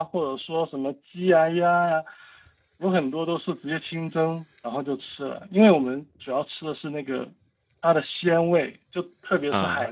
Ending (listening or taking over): listening